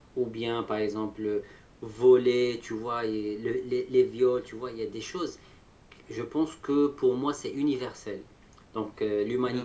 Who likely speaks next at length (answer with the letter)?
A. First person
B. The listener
A